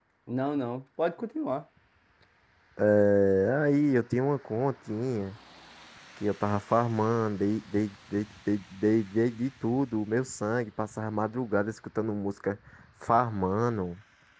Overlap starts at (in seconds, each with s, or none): none